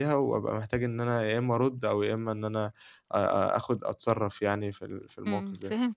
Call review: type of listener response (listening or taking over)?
taking over